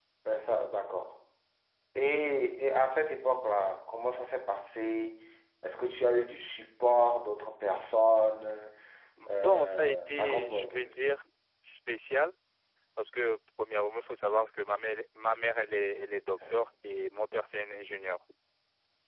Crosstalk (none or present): present